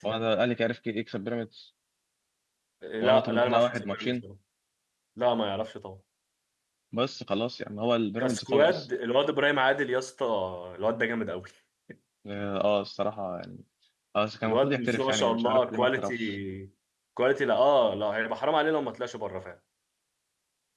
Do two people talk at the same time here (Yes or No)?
Yes